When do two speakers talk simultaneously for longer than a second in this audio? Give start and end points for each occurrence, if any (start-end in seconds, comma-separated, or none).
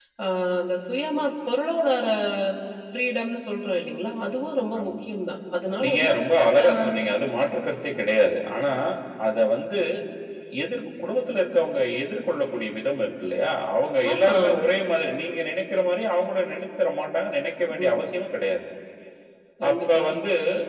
none